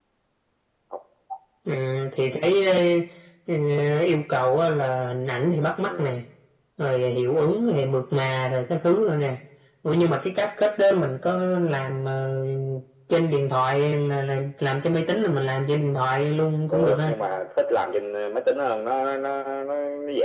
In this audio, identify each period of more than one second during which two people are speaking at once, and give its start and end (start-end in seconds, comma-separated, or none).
none